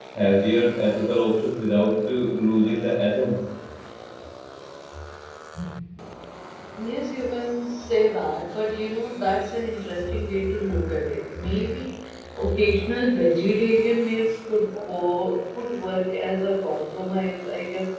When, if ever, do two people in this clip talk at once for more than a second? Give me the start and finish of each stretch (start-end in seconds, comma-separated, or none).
none